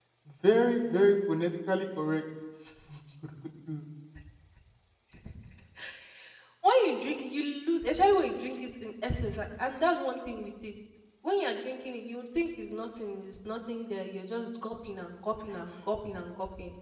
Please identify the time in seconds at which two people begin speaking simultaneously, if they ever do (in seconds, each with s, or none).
none